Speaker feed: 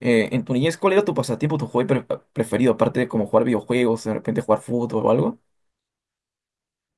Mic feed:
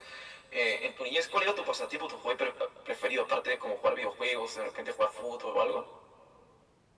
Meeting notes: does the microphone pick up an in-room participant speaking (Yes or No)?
No